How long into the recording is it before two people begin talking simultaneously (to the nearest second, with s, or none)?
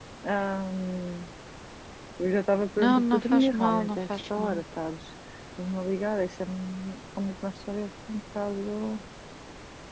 3 s